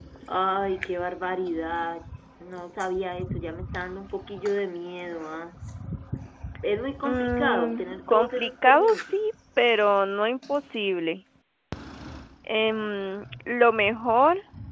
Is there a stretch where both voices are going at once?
Yes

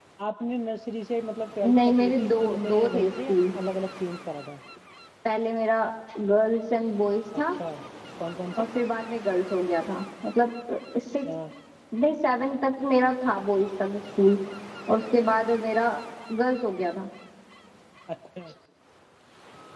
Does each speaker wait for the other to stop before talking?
No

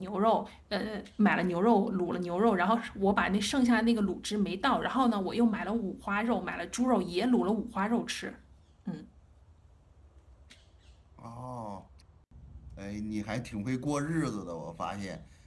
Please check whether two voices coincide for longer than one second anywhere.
No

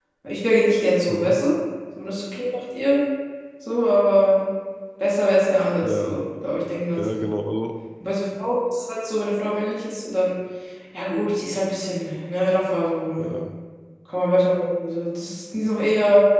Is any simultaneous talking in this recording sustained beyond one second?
No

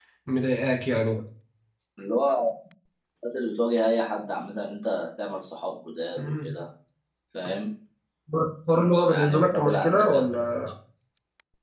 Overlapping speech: Yes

